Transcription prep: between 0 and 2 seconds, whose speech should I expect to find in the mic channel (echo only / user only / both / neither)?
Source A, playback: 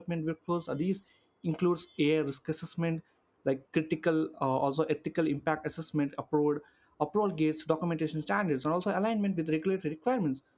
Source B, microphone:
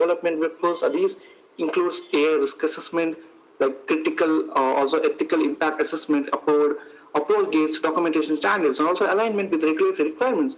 echo only